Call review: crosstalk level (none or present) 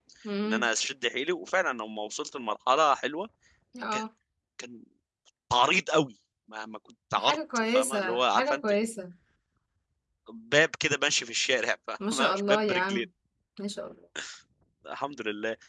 present